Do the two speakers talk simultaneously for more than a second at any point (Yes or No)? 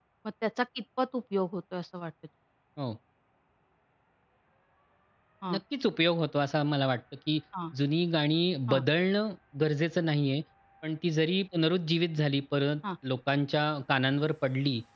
No